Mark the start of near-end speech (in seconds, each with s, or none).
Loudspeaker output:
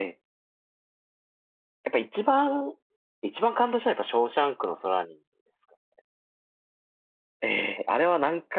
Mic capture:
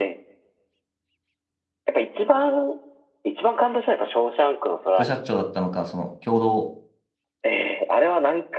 4.9 s